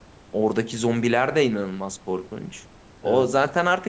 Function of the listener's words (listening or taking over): listening